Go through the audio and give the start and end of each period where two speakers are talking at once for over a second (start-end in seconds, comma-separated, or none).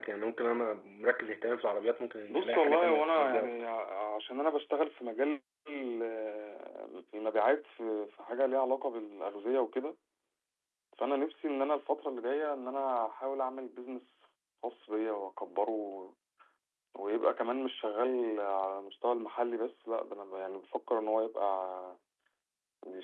2.3-3.5